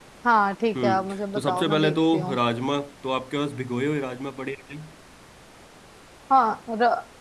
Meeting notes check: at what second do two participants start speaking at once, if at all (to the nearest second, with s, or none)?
1 s